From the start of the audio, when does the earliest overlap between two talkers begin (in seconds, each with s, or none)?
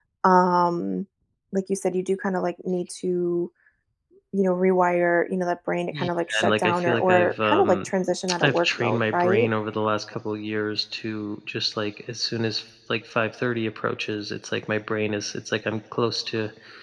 5.9 s